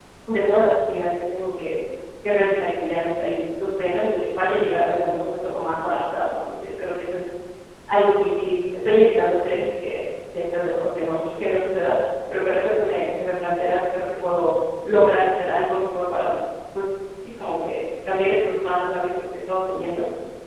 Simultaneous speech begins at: none

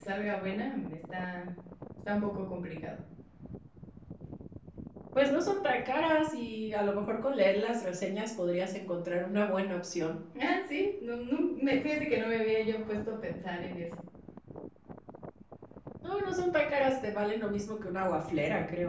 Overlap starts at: none

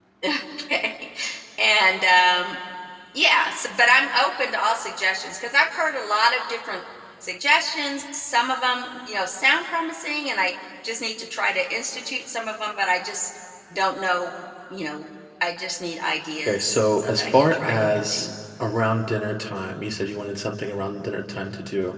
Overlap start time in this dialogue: 16.4 s

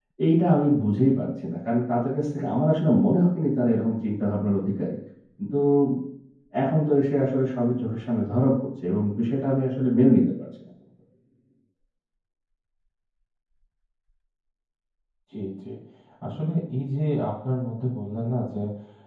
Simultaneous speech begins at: none

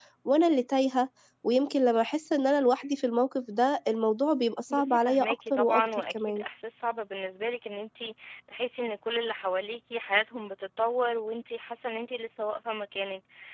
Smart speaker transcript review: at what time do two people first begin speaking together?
4.7 s

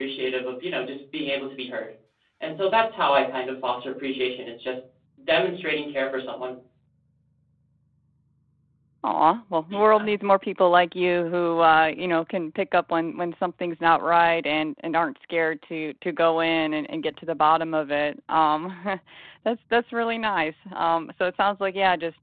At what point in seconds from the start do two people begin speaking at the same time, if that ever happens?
none

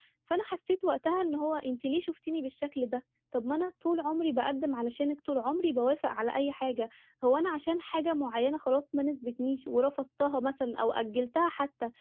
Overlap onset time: none

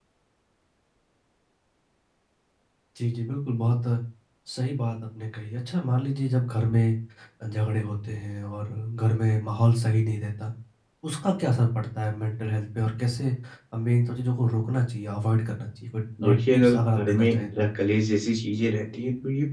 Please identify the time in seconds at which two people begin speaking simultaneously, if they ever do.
16.2 s

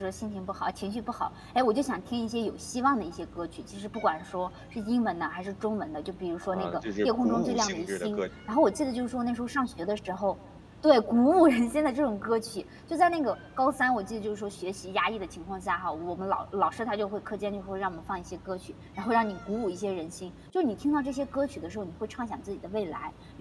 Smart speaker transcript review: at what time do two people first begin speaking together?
6.4 s

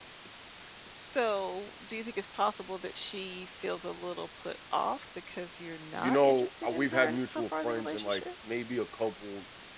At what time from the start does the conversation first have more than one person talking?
6.0 s

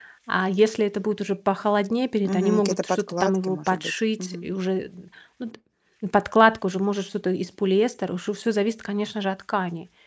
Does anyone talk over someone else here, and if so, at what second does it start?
2.2 s

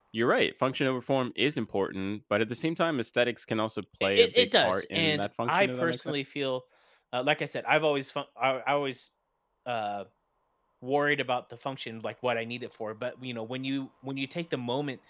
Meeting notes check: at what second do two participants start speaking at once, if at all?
4.0 s

